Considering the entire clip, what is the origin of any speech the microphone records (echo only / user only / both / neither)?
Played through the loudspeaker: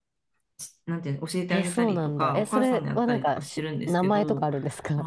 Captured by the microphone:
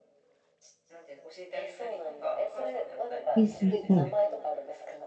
both